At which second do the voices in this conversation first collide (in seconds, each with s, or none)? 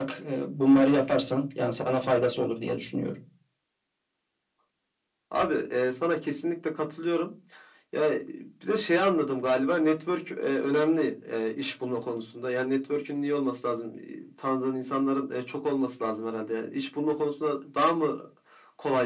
none